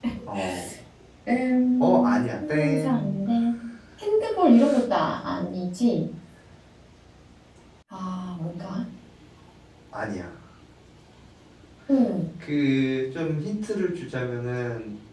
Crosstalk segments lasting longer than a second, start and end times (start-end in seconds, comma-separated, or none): 1.8-3.2